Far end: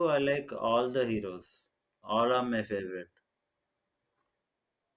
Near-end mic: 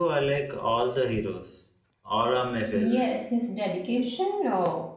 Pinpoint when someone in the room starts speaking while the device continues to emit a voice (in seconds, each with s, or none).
2.7 s